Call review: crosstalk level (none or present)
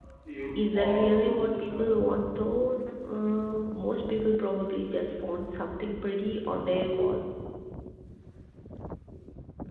present